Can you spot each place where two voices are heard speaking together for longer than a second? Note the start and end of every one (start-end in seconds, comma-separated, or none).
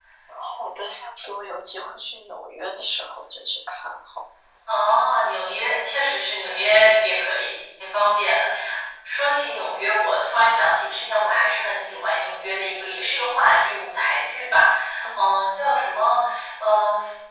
none